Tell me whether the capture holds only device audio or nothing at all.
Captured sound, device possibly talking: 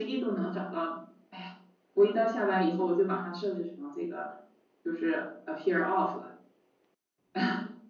Yes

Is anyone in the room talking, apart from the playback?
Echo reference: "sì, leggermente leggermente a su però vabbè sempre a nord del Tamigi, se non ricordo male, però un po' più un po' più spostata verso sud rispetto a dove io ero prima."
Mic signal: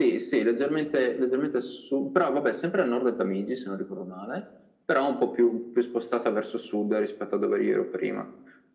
No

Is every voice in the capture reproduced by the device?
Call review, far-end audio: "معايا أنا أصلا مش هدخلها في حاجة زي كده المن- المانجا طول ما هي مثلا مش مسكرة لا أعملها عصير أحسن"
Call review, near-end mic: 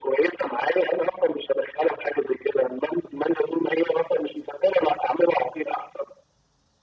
Yes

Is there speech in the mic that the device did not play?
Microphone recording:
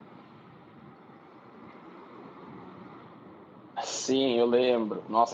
Yes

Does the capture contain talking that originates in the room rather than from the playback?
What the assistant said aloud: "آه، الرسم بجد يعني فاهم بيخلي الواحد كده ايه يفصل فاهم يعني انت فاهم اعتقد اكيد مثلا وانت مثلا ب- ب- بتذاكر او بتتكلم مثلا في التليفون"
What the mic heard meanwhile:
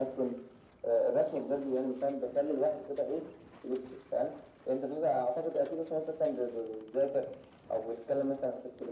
No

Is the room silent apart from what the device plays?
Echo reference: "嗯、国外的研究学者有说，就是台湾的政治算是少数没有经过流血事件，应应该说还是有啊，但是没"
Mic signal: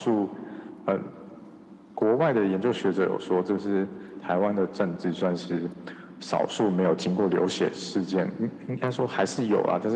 Yes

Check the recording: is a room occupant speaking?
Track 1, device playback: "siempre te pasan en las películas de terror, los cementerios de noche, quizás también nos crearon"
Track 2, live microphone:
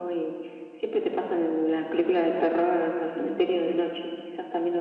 No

